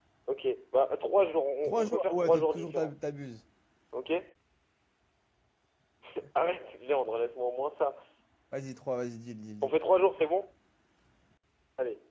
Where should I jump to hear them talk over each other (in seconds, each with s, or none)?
1.6 s